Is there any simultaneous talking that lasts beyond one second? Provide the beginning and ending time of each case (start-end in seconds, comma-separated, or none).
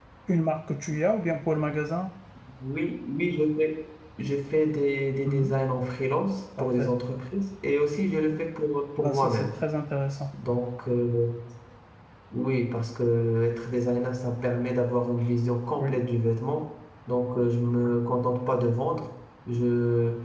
none